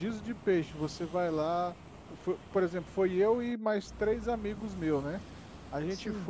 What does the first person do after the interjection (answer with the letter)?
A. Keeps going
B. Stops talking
A